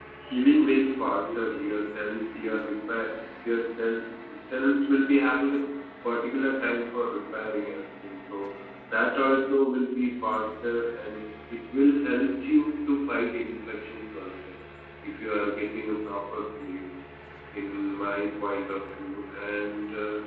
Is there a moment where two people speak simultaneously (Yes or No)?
No